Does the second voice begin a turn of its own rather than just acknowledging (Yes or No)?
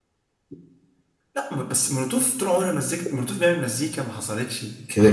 Yes